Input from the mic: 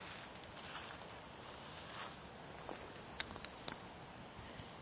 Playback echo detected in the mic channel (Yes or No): No